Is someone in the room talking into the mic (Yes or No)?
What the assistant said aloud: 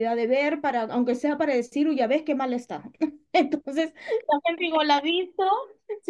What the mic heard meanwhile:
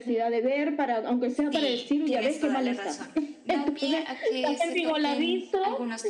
Yes